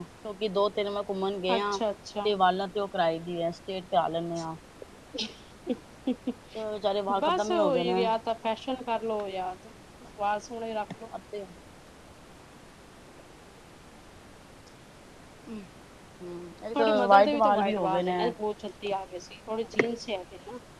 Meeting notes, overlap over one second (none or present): present